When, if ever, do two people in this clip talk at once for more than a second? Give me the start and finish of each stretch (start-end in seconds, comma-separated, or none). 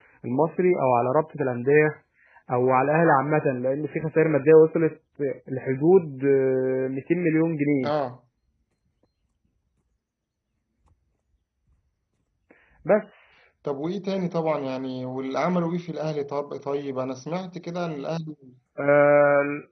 none